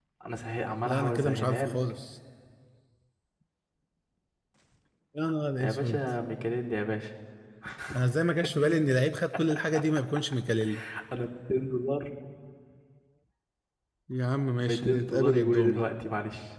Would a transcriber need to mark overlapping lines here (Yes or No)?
Yes